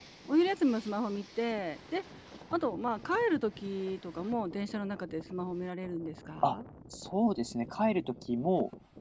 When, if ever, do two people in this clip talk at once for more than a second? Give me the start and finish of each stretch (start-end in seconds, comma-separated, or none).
none